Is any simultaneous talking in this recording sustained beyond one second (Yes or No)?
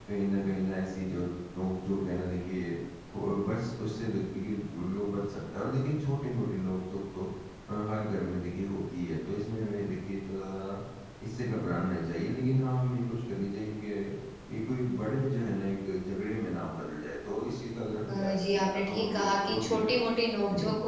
Yes